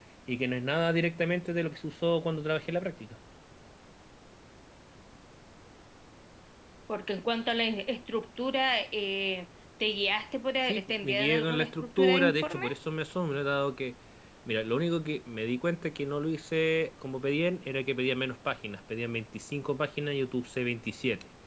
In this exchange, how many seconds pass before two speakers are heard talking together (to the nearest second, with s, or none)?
11 s